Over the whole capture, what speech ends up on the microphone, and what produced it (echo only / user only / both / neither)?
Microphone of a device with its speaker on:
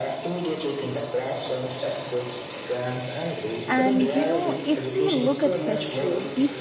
both